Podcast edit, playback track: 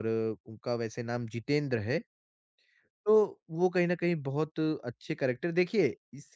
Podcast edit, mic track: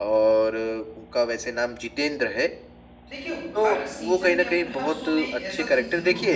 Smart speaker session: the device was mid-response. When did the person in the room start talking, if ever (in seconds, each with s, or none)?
3.1 s